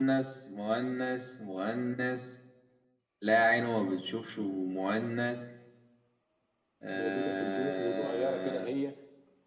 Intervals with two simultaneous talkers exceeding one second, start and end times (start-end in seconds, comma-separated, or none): 6.9-8.7